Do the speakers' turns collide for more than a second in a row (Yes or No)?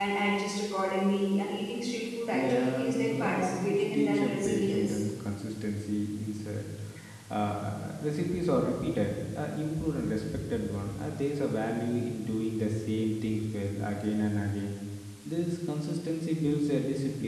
Yes